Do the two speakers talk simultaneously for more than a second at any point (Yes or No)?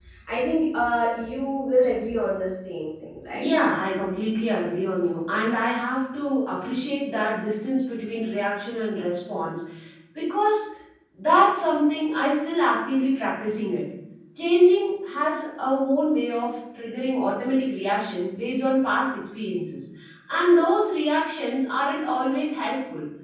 No